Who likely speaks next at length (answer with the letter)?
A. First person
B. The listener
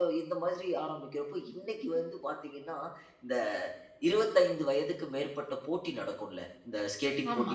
A